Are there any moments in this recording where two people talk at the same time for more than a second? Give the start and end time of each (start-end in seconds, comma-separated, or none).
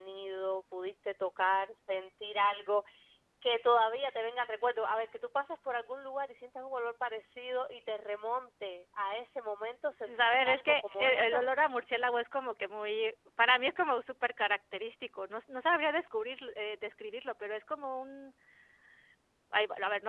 10.0-11.5